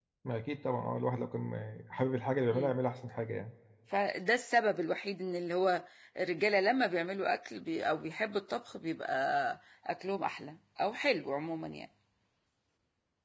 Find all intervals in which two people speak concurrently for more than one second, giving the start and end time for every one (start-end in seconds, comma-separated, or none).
none